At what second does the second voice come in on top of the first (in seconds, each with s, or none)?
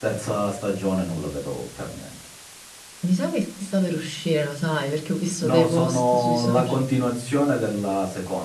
5.4 s